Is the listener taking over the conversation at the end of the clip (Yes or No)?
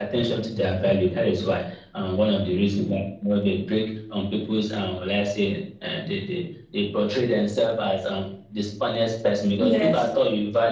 No